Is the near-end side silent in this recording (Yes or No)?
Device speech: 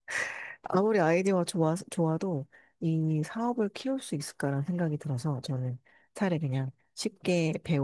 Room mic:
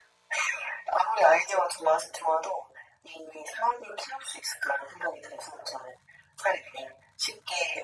Yes